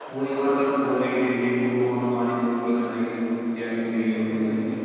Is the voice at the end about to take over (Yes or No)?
Yes